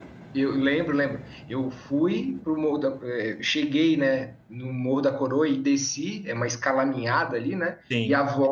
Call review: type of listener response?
listening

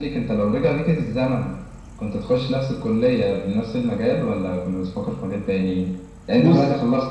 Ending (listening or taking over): listening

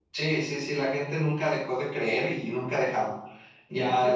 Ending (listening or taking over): taking over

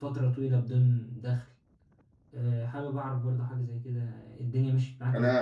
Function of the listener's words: taking over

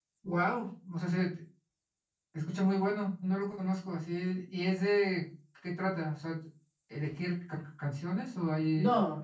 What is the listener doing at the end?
taking over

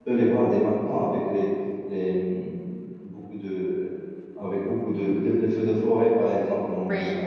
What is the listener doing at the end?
listening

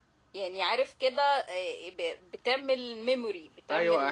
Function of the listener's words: taking over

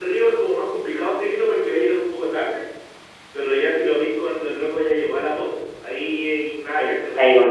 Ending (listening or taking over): taking over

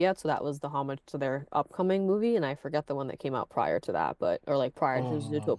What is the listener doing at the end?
listening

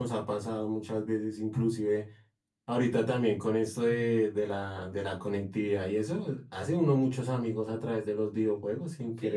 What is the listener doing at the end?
taking over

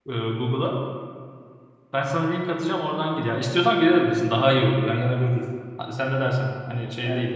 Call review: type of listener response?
taking over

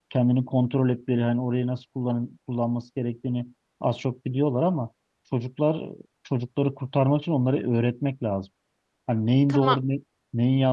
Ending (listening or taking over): listening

